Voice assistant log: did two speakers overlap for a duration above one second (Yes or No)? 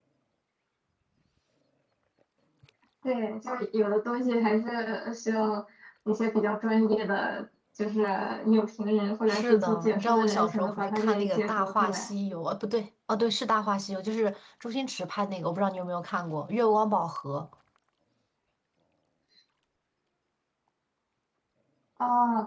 Yes